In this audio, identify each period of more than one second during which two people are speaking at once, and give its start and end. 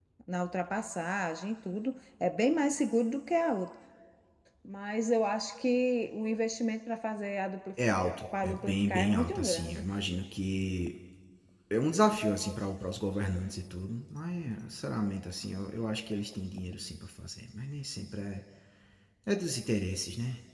8.4-9.8

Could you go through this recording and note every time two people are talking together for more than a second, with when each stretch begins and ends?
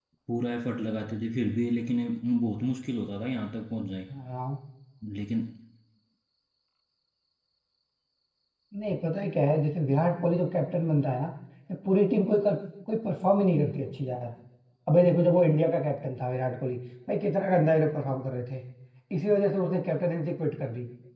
none

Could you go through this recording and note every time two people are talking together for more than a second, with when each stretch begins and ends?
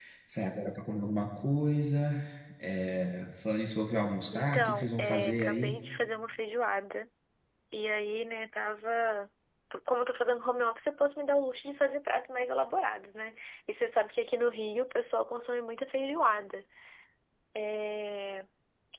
4.3-5.8

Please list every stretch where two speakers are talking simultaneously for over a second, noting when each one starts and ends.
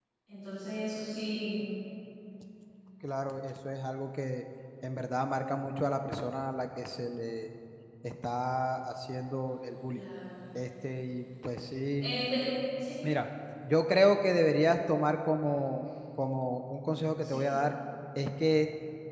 none

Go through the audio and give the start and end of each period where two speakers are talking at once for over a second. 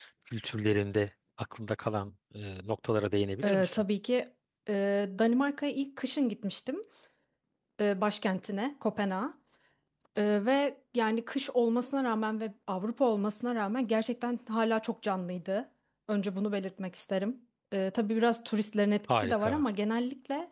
none

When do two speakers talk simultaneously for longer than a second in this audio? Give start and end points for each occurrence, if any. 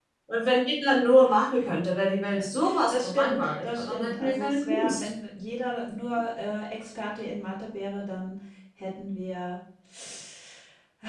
2.9-5.1

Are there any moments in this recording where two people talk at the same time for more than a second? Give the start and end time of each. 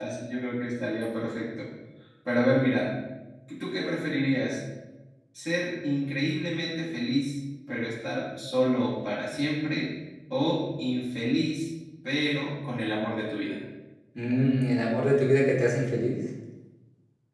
none

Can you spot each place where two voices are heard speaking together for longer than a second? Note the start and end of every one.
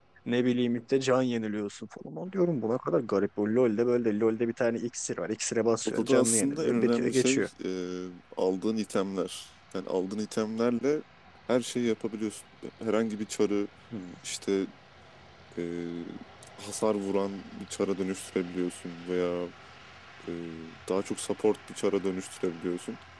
5.8-7.5

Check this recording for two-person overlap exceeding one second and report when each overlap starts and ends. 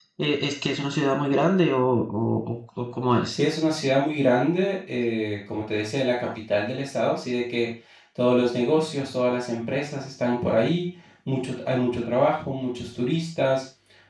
none

